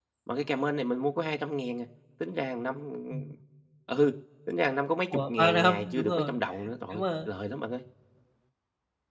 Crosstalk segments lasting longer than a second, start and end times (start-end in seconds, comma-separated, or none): 5.1-6.3